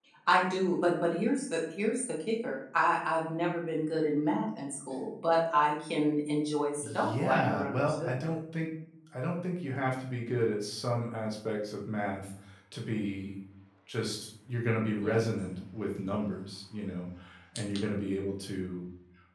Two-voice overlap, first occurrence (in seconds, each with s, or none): 6.8 s